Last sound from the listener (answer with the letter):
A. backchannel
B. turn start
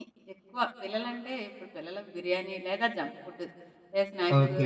B